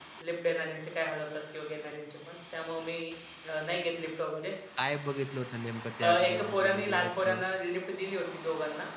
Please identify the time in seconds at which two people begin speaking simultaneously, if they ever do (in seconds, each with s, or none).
6.0 s